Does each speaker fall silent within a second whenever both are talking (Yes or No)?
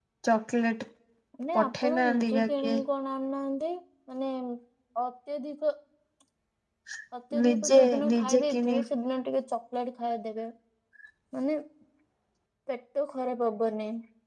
No